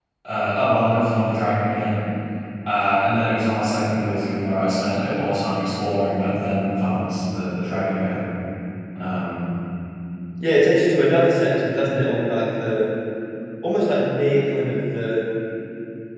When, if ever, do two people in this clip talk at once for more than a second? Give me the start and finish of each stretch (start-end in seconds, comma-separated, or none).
none